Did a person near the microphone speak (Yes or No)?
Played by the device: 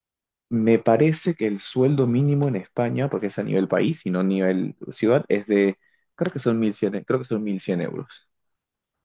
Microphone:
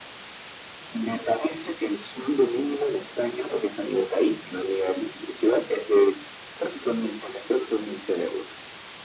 No